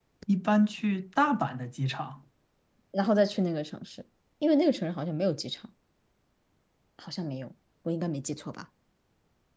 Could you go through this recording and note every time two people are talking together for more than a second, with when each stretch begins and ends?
none

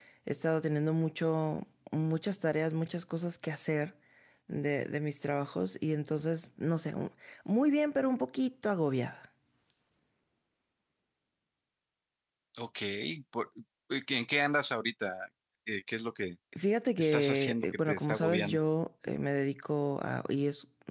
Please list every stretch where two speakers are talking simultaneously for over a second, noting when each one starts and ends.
17.0-18.6

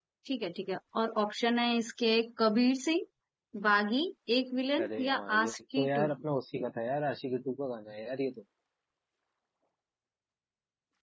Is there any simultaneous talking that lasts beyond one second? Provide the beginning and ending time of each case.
4.8-6.1

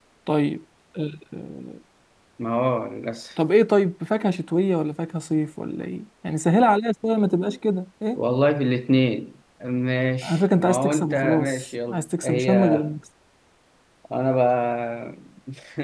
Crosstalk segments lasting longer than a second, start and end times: 10.2-12.9

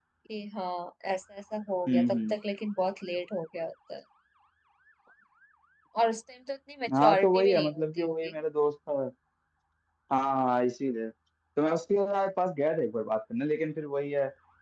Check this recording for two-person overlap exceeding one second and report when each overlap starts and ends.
7.0-8.3

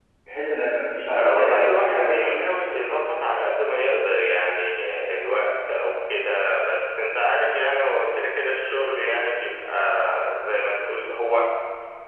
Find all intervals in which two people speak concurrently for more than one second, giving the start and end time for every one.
1.1-2.4

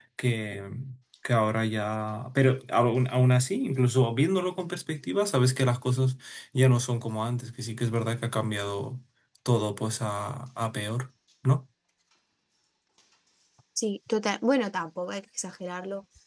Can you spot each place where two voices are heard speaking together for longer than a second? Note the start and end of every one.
none

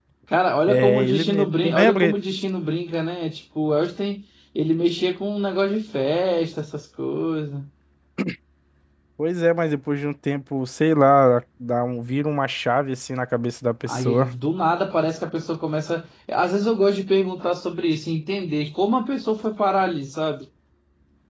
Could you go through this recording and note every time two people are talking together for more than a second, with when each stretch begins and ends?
0.7-2.1

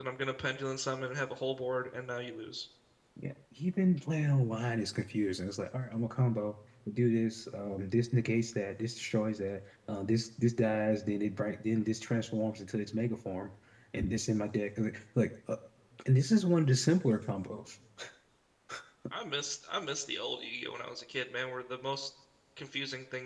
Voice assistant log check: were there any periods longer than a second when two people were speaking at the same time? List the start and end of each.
none

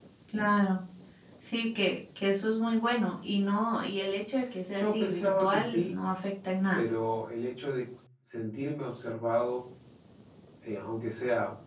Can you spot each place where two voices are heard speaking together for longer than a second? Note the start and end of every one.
4.7-6.0

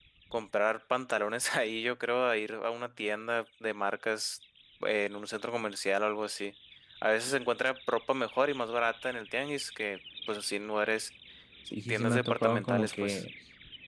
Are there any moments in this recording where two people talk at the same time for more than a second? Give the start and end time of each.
11.9-13.2

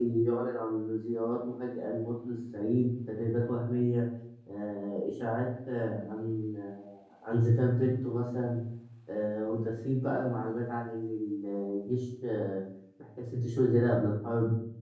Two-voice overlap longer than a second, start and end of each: none

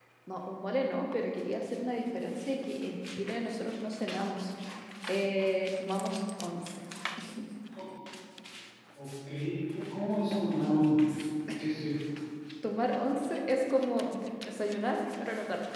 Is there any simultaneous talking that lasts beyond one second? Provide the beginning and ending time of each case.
none

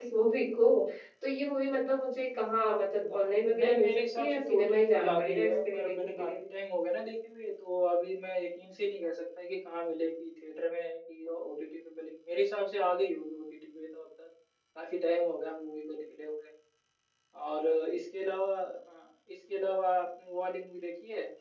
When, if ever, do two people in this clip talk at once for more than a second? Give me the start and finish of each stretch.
3.6-6.3

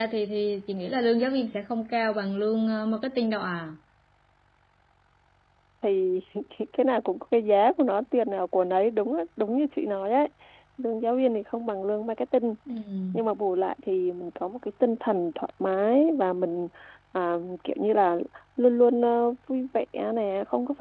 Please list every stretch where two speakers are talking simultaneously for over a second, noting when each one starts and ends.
none

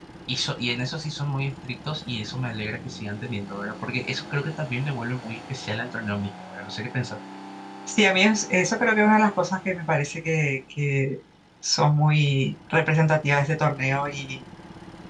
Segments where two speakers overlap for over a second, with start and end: none

